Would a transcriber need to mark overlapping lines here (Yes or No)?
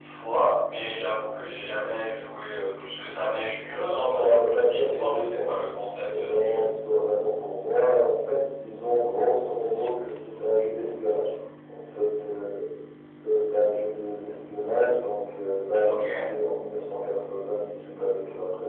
Yes